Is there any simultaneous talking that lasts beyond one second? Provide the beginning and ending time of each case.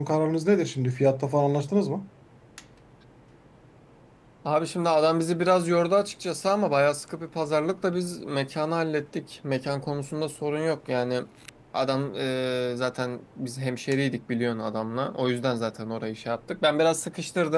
none

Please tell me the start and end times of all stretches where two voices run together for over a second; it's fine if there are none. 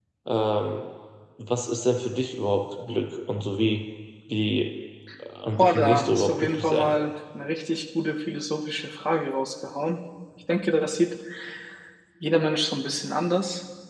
5.6-6.9

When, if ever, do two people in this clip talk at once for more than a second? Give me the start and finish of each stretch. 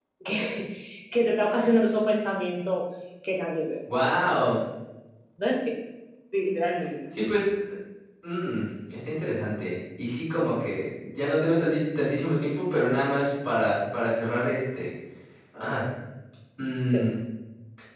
none

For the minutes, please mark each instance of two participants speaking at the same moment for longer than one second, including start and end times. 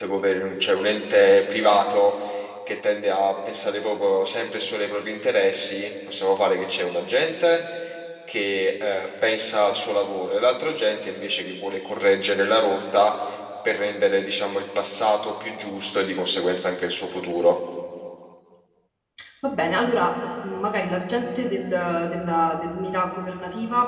none

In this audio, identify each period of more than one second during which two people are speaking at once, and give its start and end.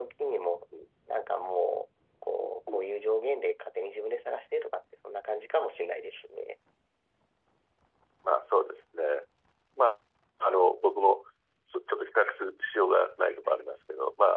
none

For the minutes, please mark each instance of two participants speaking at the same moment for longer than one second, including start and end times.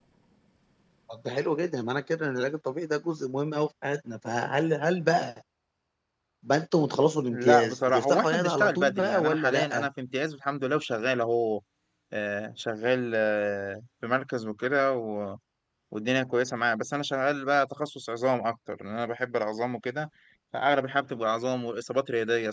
7.3-9.9

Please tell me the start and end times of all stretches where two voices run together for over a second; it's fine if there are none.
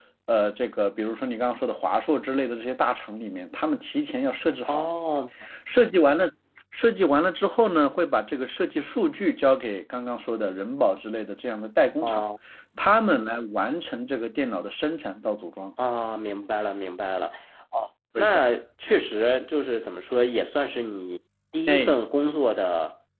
none

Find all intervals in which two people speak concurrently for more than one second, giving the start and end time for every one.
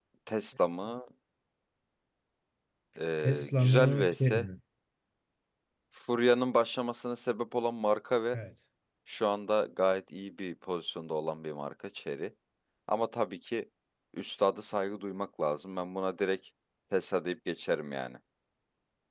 3.2-4.4

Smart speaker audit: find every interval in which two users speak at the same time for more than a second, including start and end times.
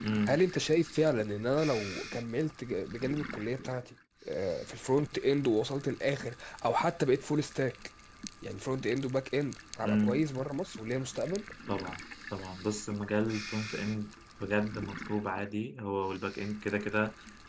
none

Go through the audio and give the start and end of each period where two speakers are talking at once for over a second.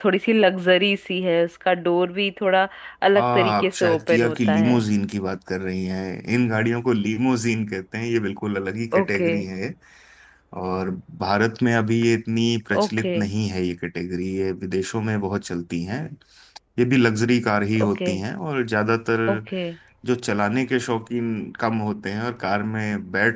3.1-4.8

